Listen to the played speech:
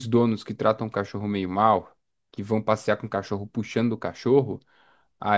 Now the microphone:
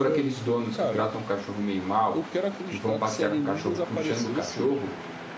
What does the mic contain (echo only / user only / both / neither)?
both